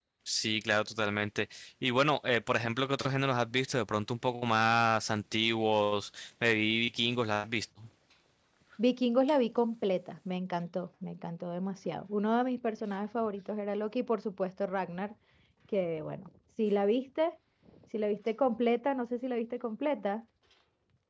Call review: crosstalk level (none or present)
none